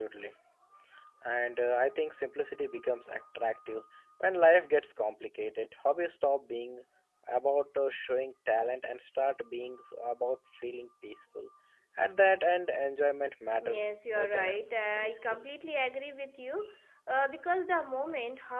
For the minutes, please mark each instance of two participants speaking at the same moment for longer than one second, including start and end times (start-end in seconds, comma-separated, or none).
13.7-15.4